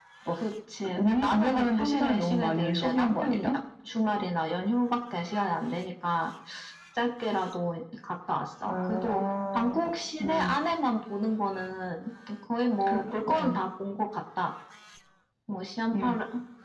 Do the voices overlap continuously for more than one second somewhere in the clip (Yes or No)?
Yes